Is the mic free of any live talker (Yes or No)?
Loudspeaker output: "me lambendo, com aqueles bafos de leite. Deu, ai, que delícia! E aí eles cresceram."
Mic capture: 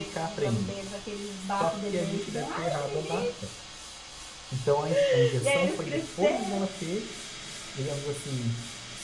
No